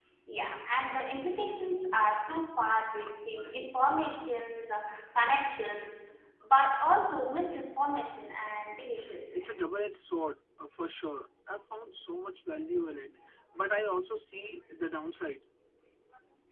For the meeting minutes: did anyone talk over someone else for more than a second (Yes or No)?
No